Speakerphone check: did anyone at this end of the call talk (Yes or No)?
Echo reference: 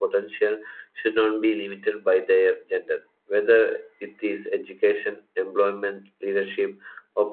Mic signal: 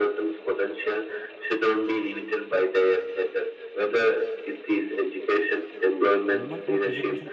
Yes